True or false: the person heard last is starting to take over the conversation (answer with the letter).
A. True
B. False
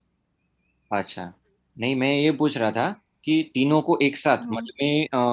B